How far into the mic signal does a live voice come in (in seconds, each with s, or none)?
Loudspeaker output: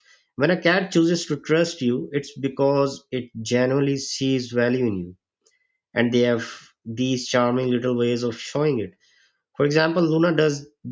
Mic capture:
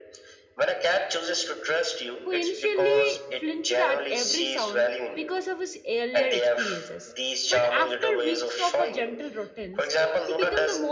2.2 s